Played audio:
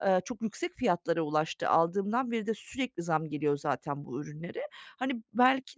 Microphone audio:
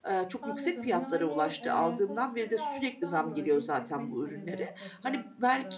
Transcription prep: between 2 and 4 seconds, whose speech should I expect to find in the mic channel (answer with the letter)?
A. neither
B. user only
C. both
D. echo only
C